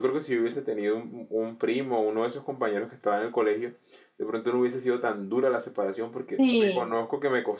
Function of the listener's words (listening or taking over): listening